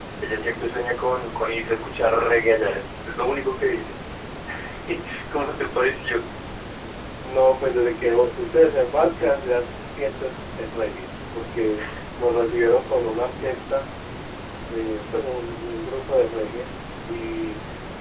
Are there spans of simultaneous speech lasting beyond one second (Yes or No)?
No